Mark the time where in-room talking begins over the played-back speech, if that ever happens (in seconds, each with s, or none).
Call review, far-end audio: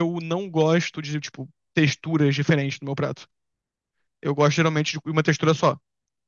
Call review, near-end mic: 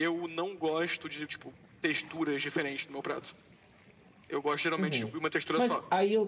4.8 s